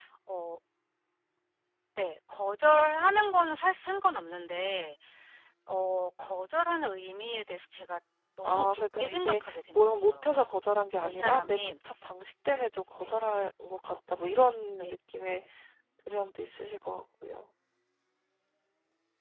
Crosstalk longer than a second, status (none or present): present